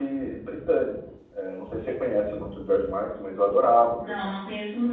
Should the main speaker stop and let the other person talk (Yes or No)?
Yes